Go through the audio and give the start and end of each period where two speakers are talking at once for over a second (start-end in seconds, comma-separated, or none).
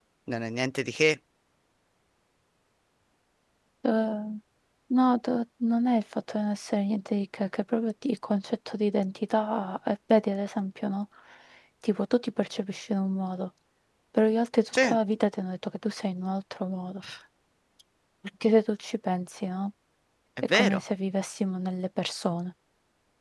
none